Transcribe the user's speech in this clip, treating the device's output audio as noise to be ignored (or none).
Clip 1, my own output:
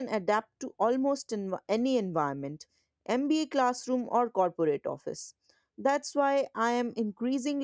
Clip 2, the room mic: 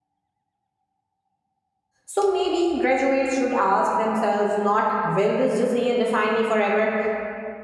So maybe graduates should ask themselves not will this decision define me forever,